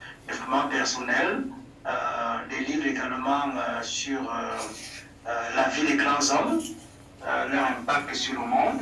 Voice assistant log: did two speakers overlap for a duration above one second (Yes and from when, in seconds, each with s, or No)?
No